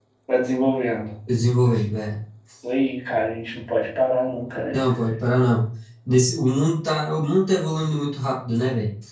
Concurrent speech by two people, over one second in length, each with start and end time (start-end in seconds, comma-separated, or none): none